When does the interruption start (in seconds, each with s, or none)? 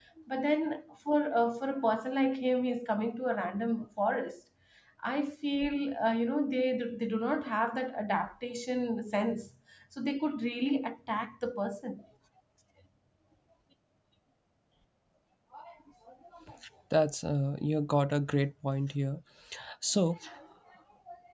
none